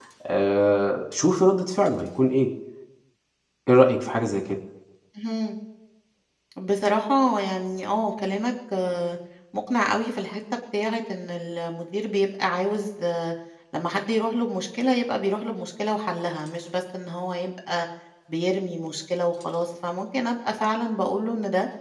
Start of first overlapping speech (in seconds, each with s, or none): none